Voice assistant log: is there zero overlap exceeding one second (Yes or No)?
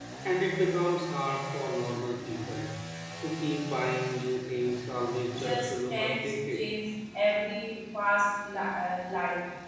No